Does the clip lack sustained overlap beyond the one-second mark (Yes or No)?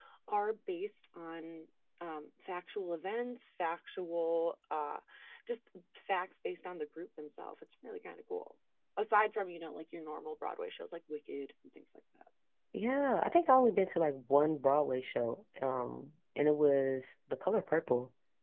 Yes